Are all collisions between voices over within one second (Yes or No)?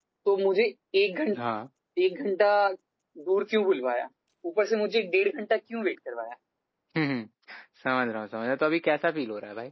Yes